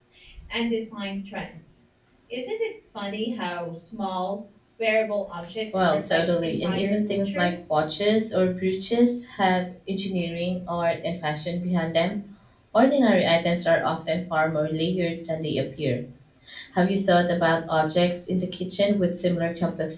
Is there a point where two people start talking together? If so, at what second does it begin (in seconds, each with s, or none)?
5.7 s